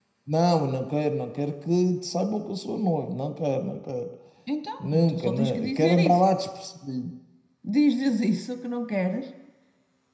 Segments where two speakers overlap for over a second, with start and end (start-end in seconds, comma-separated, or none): 4.9-6.3